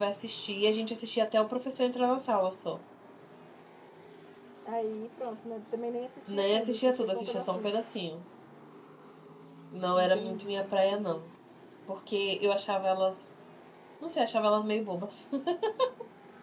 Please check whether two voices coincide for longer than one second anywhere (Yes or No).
Yes